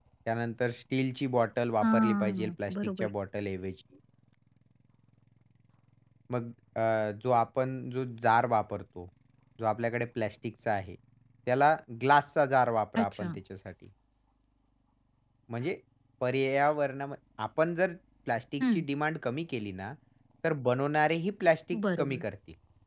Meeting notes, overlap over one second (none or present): present